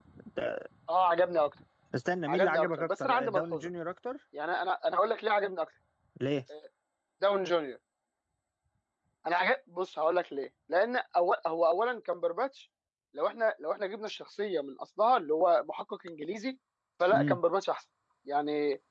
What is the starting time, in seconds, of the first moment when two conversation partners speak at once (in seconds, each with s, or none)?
2.3 s